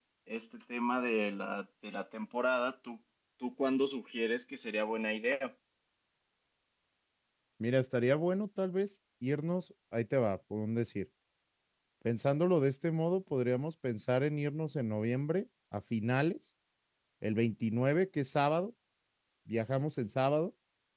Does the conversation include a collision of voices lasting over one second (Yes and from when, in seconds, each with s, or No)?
No